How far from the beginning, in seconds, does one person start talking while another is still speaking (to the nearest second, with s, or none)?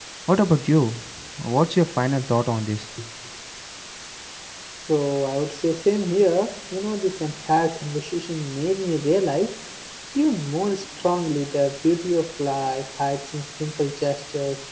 none